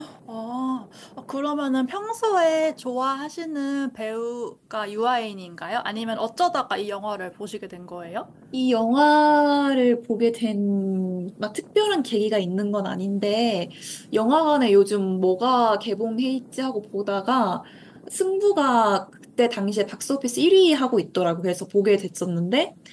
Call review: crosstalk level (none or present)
none